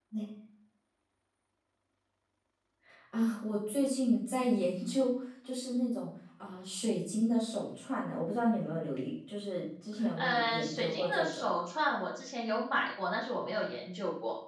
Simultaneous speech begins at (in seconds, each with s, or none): 9.9 s